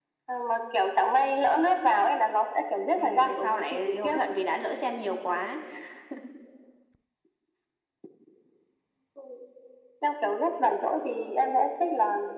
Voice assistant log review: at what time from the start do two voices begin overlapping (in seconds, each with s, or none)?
3.0 s